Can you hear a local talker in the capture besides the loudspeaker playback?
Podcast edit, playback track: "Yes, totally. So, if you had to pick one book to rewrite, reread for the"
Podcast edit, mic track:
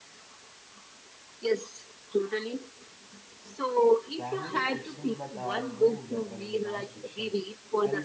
Yes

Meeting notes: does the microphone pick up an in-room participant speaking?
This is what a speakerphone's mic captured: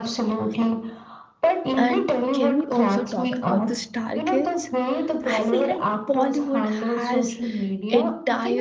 Yes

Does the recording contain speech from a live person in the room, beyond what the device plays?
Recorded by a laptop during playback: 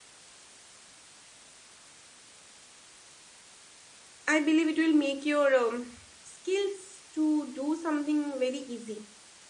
Yes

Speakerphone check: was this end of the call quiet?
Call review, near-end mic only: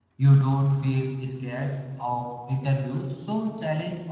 No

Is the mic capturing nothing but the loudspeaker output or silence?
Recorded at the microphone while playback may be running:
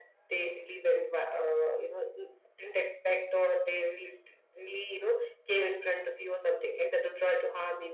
Yes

